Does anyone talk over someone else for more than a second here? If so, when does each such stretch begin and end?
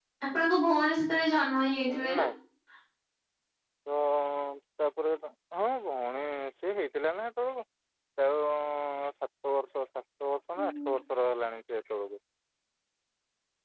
none

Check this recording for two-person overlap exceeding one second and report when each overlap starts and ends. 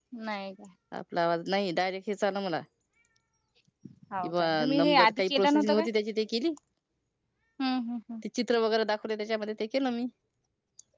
4.2-5.9

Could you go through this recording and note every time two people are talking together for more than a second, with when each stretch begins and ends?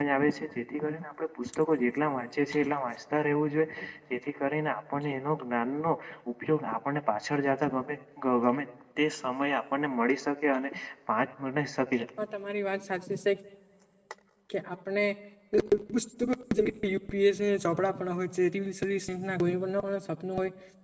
none

